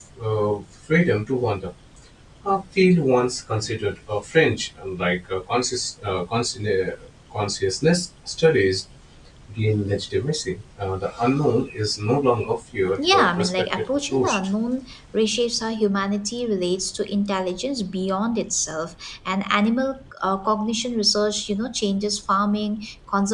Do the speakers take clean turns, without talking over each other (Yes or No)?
No